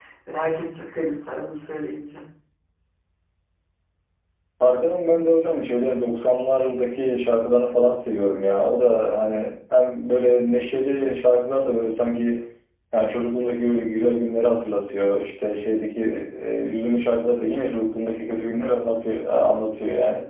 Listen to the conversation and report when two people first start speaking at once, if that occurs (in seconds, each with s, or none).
none